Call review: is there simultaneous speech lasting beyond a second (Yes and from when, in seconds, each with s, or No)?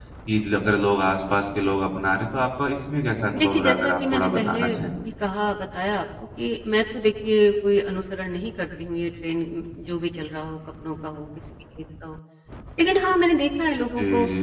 Yes, from 3.4 s